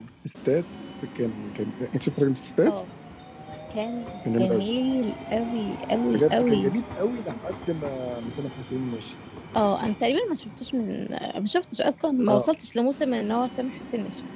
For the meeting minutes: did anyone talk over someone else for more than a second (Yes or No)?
No